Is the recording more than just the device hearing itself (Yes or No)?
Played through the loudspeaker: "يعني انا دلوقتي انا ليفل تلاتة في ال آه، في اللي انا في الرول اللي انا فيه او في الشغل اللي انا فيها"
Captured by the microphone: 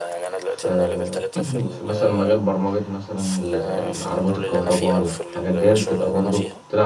Yes